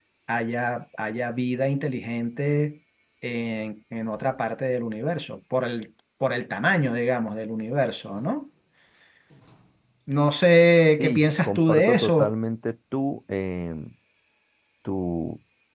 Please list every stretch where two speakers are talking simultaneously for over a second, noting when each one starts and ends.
11.0-12.3

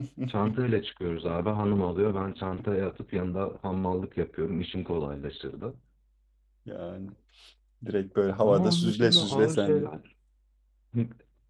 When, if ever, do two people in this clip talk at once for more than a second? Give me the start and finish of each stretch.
8.4-9.9

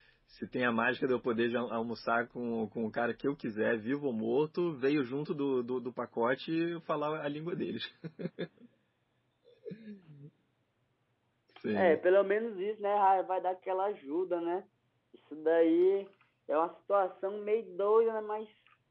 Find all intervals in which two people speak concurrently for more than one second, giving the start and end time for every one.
none

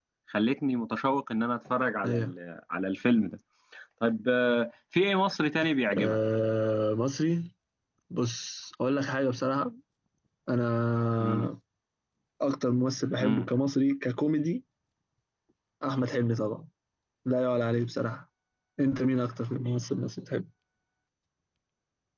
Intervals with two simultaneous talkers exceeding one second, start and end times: none

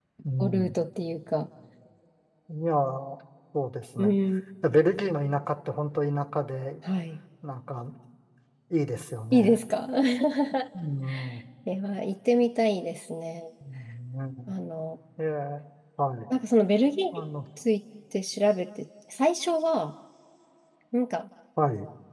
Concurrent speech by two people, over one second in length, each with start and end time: none

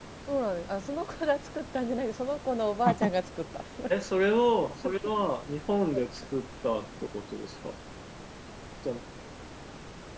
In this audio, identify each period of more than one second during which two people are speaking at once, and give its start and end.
none

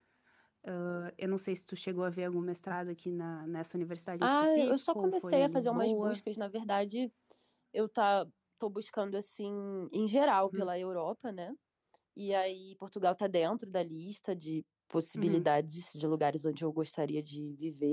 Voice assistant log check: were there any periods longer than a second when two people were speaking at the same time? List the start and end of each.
4.2-6.2

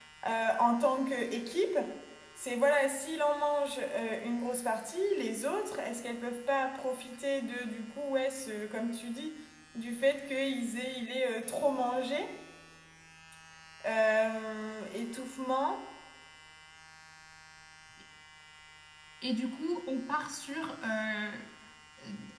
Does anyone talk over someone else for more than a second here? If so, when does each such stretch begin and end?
none

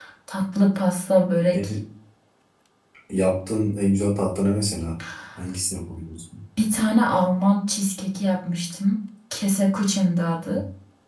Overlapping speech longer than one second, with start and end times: none

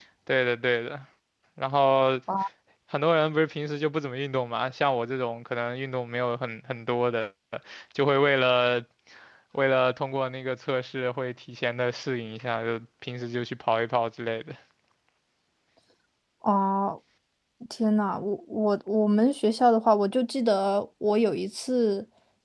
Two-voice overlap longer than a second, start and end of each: none

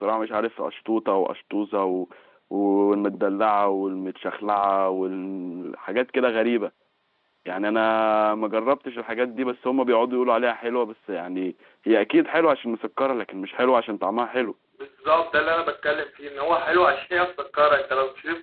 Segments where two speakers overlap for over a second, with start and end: none

